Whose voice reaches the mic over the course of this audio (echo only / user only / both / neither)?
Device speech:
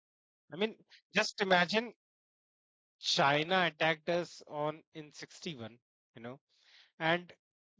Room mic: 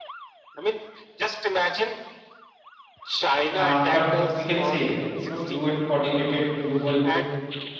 both